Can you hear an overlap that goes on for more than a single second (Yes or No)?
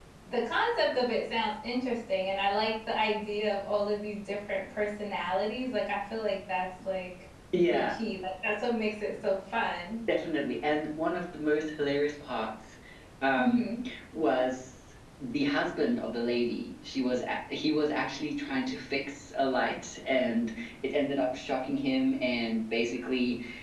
No